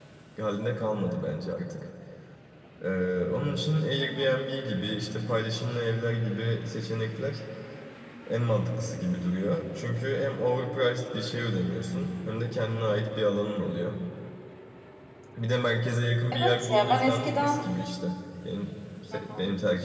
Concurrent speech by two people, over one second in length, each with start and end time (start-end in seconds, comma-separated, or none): 16.3-17.7